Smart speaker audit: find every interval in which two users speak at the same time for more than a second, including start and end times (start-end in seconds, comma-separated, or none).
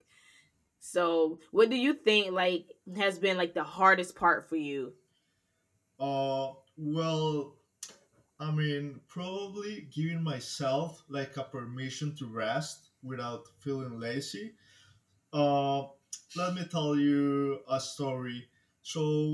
none